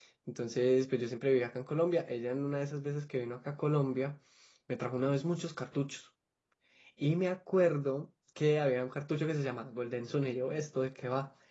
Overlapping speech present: No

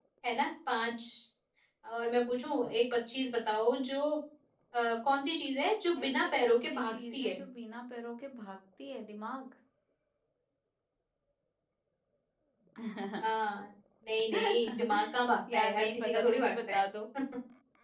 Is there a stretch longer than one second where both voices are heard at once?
Yes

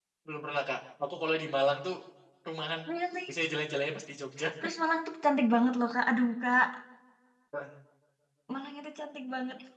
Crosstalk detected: No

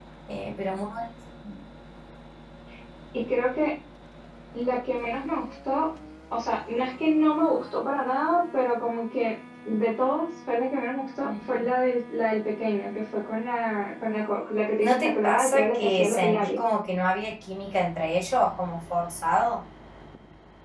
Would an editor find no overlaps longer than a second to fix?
No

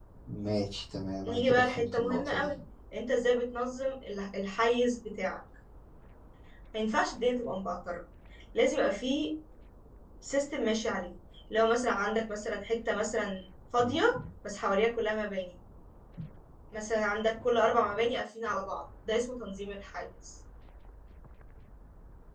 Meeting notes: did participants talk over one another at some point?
Yes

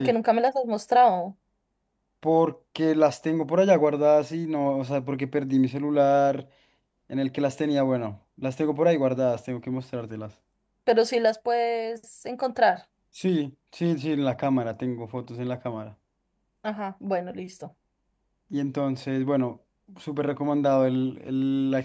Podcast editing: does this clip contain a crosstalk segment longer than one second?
No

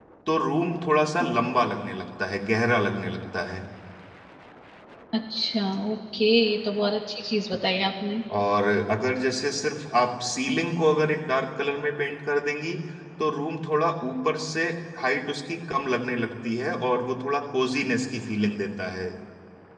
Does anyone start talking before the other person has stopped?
No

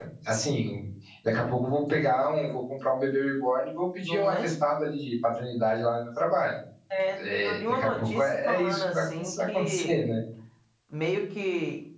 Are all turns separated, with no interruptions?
No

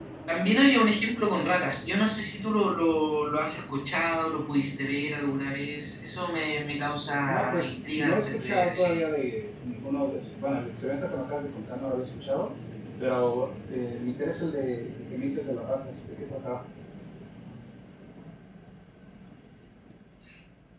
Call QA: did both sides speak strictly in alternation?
No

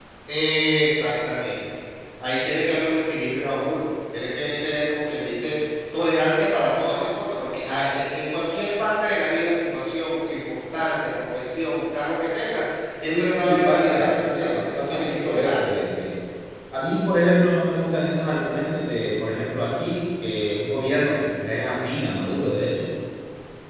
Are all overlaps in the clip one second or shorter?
No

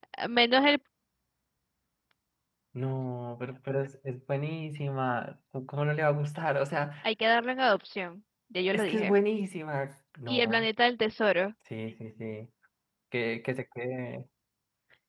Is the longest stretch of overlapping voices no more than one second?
Yes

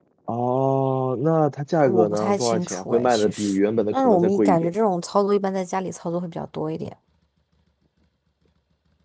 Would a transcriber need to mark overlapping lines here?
Yes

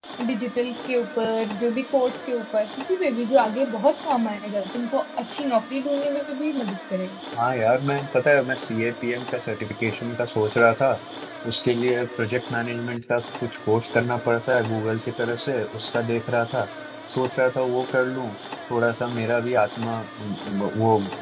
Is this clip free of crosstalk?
Yes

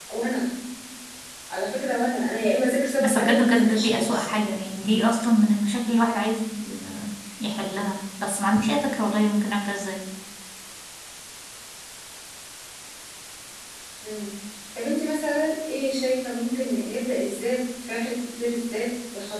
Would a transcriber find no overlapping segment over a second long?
No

